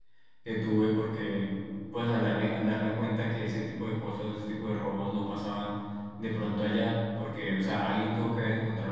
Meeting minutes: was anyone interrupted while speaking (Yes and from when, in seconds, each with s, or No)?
No